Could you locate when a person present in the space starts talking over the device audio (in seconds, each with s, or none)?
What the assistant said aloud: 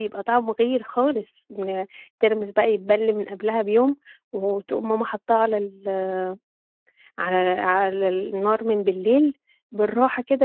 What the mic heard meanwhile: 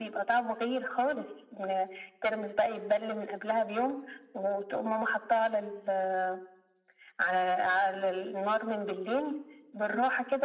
none